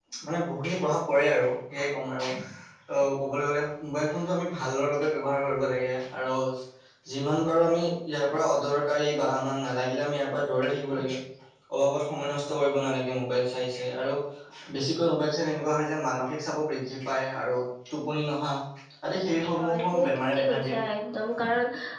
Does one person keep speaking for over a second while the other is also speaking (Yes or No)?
Yes